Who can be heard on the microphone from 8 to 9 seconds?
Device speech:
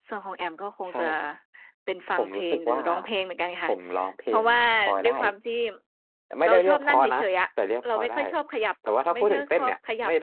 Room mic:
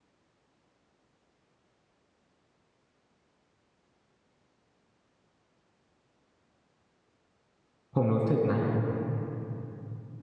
user only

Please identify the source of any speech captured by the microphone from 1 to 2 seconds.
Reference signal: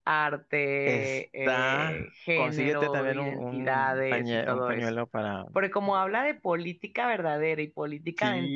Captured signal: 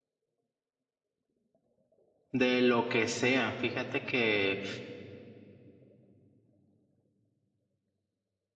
neither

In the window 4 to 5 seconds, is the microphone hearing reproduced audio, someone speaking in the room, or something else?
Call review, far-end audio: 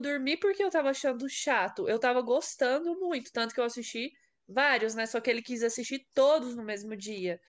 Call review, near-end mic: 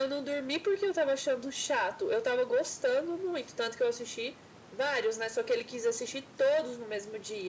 echo only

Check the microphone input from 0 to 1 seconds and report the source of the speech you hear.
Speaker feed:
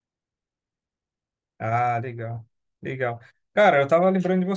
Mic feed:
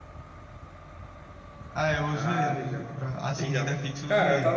neither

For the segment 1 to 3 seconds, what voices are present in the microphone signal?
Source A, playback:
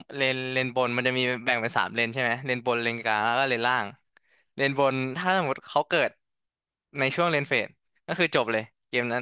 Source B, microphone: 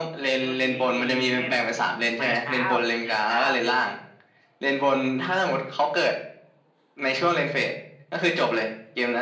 both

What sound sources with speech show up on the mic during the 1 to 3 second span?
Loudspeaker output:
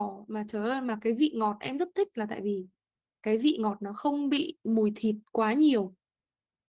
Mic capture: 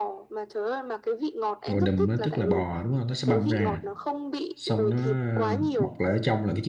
both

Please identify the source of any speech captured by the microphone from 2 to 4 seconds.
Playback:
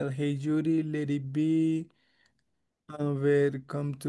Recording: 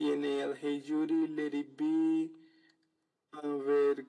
echo only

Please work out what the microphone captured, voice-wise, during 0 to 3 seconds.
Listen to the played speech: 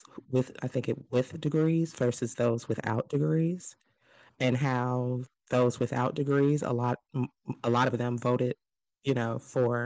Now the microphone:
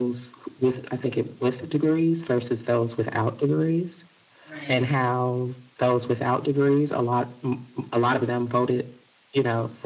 echo only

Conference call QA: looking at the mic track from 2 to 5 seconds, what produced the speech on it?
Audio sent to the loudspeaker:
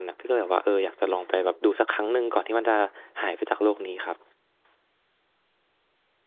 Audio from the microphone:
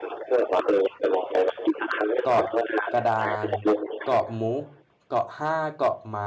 both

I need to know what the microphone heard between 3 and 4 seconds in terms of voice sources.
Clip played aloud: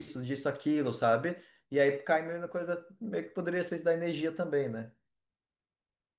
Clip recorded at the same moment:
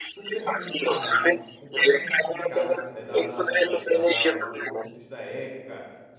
both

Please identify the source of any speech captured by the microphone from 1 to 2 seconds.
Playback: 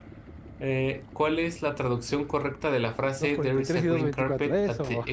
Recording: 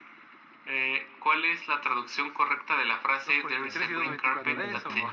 echo only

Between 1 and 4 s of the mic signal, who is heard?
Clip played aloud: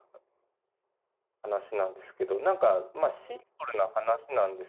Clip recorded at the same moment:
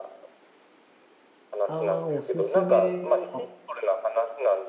both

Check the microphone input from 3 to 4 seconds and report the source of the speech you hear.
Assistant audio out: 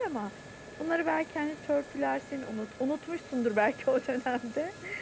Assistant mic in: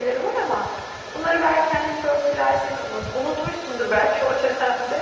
echo only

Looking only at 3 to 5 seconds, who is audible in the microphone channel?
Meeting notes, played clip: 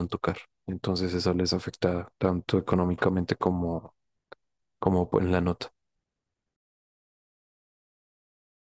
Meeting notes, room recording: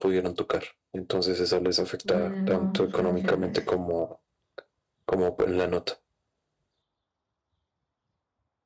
both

